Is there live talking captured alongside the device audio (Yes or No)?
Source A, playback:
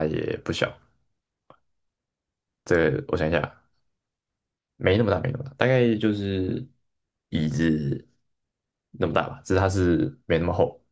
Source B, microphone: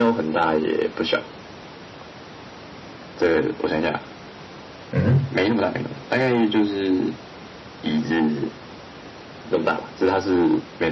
Yes